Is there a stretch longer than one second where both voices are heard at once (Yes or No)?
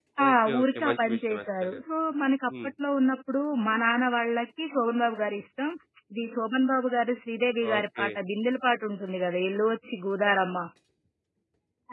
Yes